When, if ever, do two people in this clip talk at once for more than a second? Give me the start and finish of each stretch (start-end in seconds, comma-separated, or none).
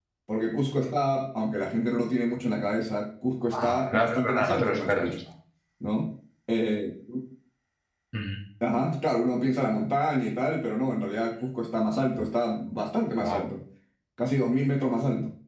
3.6-5.2